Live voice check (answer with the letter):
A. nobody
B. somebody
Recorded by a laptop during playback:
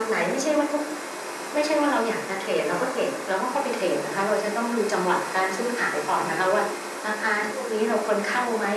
A